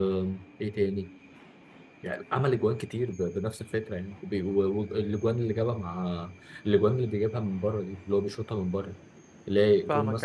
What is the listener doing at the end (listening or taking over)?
taking over